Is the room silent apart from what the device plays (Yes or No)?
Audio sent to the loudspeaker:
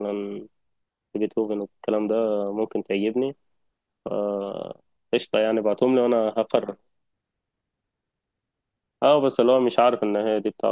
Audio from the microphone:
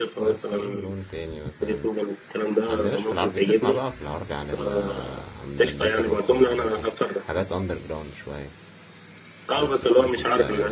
No